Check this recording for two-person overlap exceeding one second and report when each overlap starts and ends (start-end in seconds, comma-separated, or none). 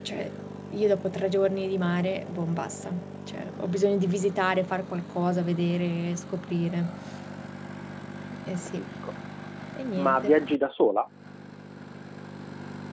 none